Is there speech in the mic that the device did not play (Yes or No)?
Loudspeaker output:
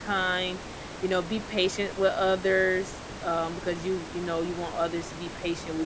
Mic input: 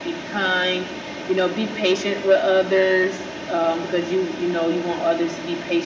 No